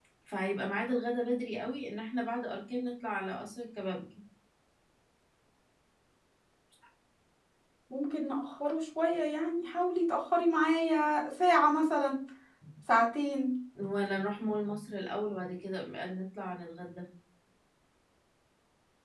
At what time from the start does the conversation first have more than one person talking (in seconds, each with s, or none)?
none